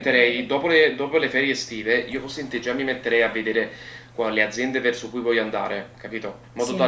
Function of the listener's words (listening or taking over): listening